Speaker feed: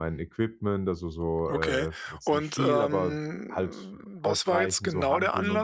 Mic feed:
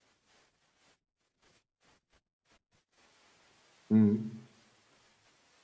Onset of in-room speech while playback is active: 3.9 s

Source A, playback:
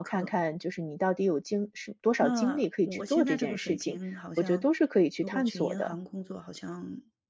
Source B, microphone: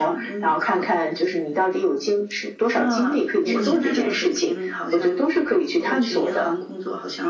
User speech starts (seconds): 3.5 s

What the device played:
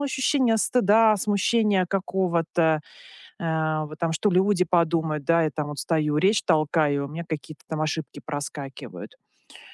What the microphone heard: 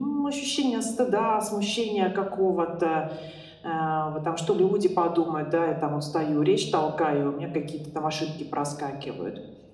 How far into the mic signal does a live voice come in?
none

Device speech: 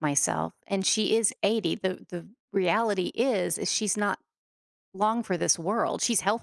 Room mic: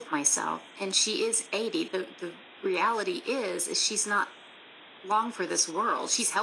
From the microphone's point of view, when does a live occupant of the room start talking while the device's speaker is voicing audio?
none

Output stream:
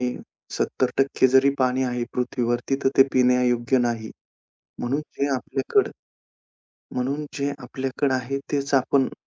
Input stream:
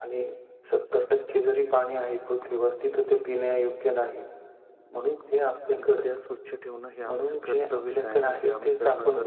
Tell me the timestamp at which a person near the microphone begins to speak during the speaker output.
5.8 s

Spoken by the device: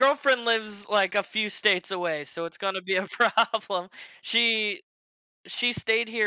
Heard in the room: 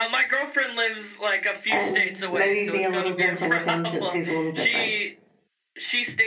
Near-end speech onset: 1.7 s

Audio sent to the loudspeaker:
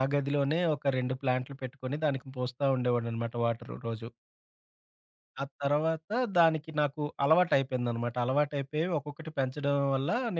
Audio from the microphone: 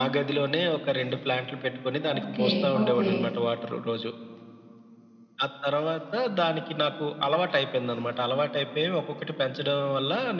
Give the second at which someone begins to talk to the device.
2.1 s

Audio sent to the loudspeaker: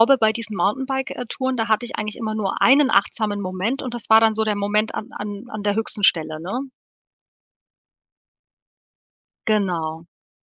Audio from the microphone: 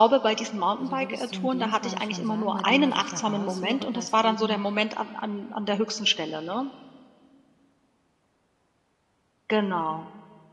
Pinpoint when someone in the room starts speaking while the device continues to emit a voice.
0.8 s

